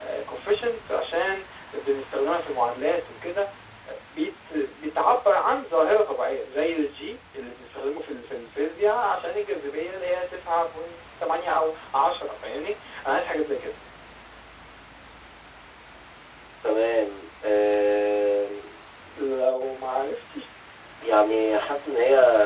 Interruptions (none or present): none